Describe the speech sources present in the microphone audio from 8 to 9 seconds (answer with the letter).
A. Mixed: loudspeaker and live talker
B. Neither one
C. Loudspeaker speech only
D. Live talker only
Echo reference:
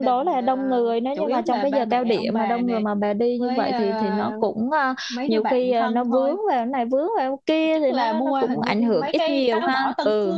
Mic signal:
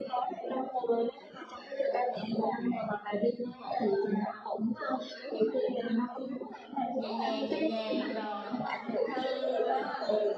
A